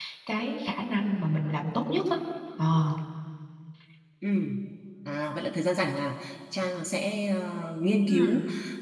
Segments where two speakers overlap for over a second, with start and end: none

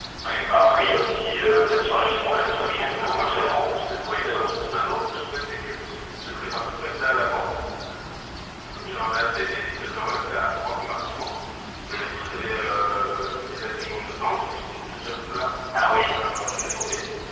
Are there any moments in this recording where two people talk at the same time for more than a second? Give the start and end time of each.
2.2-4.4

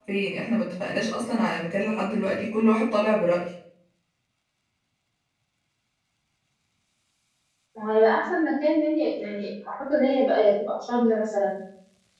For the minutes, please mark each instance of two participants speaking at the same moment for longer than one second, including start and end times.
none

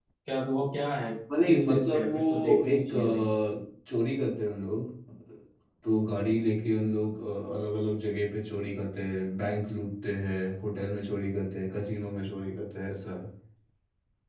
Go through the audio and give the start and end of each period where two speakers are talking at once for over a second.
1.4-3.2

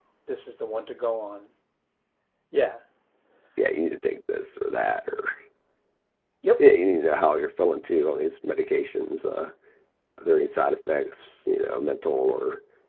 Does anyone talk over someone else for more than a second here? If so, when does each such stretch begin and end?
none

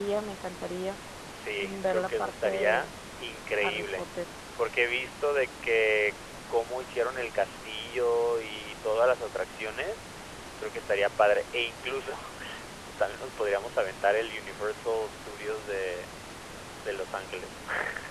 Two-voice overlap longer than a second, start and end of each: 1.6-2.9

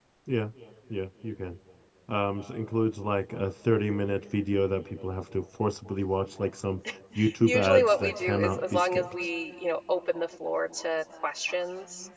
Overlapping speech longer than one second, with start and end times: 7.5-9.1

